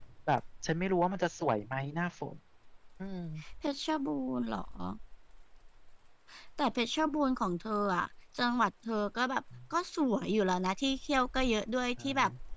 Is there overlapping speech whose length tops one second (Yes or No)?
No